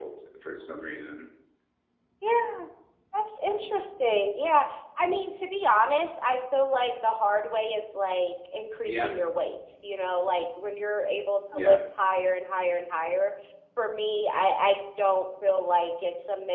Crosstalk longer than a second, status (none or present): none